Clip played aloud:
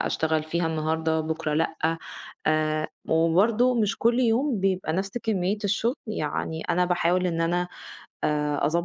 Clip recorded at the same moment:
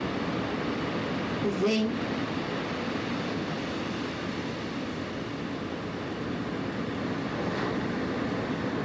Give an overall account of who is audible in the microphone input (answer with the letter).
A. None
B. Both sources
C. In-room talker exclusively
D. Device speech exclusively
C